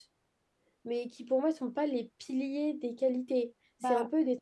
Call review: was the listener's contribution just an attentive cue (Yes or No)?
Yes